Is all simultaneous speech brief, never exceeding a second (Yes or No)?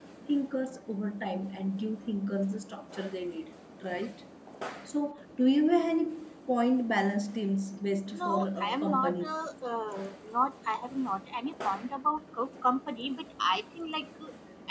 No